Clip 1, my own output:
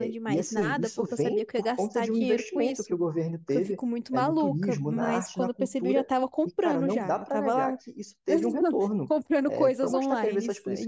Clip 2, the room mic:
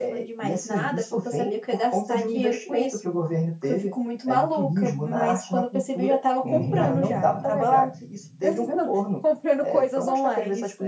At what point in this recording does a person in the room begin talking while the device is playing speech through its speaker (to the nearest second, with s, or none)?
6 s